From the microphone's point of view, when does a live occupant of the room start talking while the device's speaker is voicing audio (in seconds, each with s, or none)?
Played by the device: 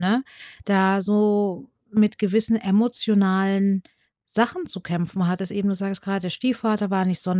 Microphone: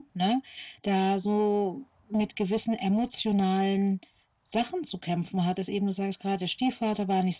none